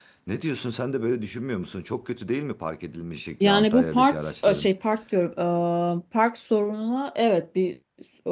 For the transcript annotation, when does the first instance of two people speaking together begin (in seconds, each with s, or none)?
3.4 s